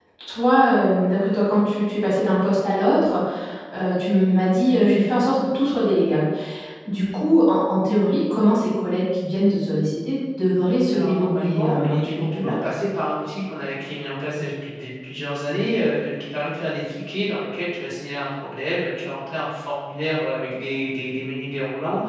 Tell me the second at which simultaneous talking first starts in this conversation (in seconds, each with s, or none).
10.9 s